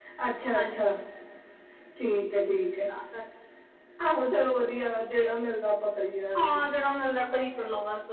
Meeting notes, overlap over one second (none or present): none